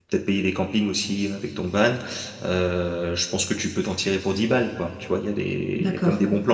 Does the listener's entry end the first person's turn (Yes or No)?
No